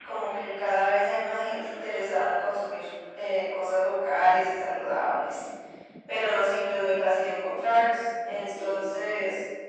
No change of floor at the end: Yes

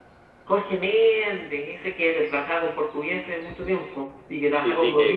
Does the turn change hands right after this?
Yes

